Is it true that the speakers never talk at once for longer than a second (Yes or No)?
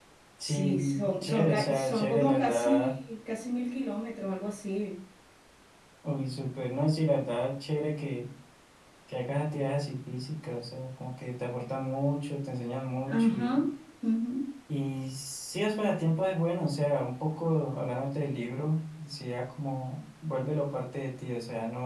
No